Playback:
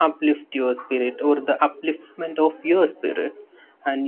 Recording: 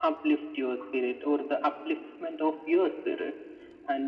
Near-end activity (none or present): none